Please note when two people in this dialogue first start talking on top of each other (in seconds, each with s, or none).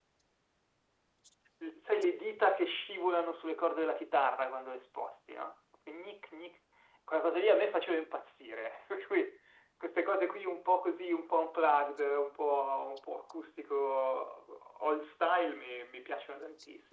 none